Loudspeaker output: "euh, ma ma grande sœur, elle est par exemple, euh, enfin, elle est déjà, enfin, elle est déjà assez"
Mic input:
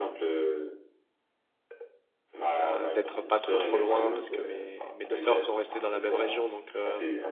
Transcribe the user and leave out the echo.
euh, d'être pas trop trop loin parce que mes, mes deux sœurs sont restées dans la même région donc euh,

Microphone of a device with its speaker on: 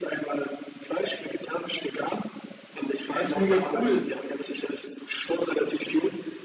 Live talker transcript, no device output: er ist mega cool,

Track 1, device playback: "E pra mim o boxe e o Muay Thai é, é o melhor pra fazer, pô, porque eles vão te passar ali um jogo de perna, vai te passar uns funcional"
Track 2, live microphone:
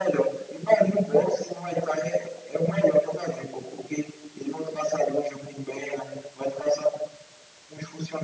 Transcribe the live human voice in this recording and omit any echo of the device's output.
none

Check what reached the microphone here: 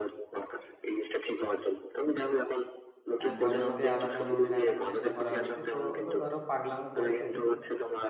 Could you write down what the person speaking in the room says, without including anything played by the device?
আহ, পরে ওকে আলাদা রুমে রাখার চেষ্টা করা হচ্ছে তো ও তো ধরো পাগলামো করছেই

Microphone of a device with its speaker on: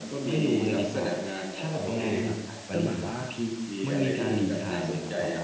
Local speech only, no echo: เด็กเลยครับก็เหมือนว่า

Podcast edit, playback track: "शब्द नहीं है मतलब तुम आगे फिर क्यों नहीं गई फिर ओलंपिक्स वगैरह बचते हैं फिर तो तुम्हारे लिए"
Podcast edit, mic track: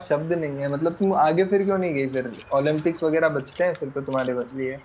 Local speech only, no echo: none

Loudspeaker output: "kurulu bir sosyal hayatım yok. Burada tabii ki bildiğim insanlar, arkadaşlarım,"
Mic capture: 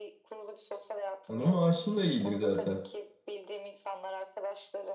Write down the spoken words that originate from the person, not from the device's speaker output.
ama maaşın da iyidir zaten.

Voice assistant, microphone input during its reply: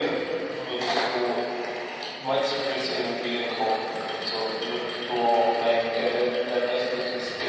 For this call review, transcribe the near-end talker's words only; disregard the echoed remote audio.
none

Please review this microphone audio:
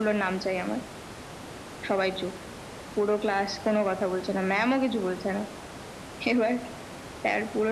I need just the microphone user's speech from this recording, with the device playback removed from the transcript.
none

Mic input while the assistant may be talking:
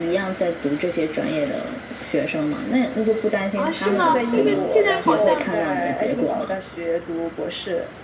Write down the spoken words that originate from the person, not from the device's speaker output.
啊，是吗？那个现在好像

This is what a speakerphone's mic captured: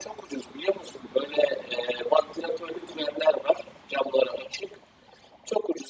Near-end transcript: none

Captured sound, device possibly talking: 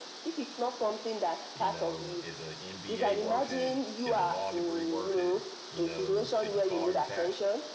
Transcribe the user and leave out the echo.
you know, is an MBA worth it? Is a law degree worth it? You know, should you follow your passion?

